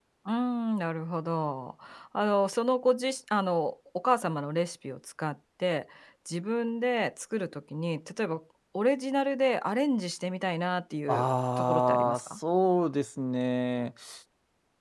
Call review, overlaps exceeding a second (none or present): present